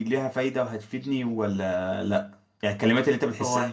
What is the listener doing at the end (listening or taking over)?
listening